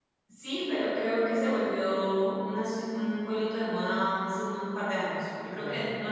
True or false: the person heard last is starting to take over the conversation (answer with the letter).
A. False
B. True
A